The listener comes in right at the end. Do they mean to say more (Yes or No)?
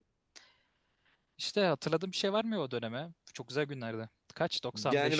Yes